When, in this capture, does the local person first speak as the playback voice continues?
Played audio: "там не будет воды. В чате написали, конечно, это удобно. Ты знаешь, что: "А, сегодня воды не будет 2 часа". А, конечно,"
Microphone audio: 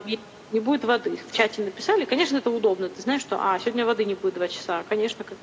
none

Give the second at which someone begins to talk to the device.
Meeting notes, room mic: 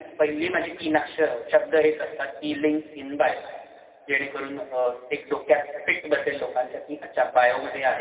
none

